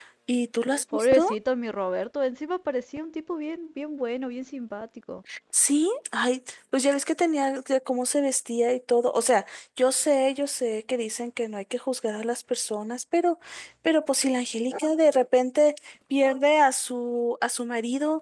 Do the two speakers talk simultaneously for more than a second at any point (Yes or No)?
No